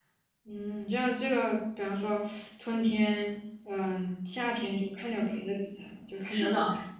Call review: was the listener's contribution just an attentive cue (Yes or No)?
No